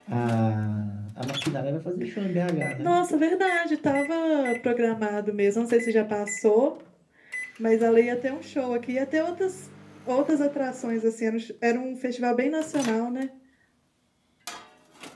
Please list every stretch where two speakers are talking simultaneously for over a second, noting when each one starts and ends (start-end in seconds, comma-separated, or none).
none